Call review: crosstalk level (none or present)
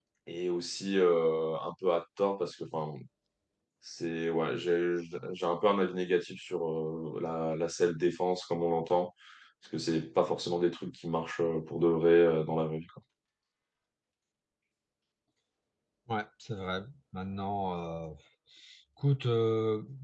none